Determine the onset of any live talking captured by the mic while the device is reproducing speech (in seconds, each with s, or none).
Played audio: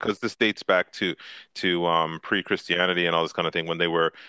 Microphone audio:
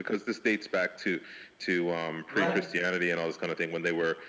2.3 s